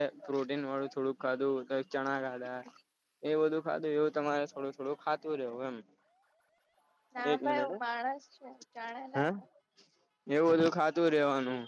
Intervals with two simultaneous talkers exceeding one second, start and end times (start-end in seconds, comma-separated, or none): none